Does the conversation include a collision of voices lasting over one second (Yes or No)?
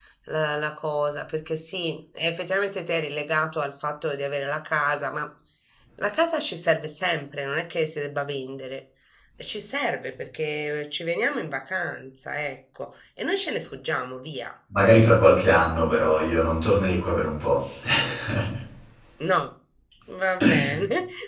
No